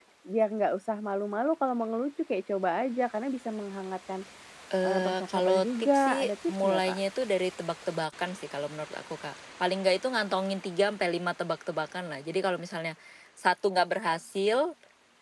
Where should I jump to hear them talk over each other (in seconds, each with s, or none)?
4.8 s